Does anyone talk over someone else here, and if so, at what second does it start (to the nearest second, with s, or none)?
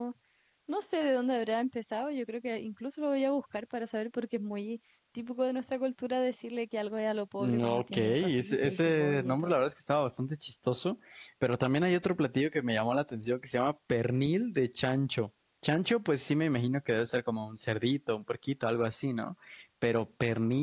7 s